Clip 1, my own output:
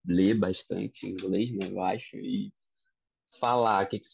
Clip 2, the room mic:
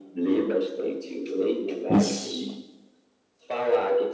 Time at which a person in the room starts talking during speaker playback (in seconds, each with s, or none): 1.9 s